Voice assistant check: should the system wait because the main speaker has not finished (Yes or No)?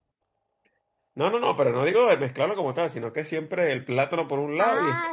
No